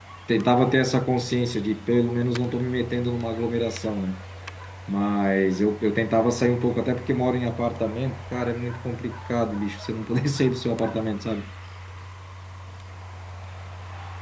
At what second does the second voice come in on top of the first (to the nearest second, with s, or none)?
none